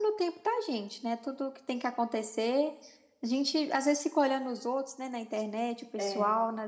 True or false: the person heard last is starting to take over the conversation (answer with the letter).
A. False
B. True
A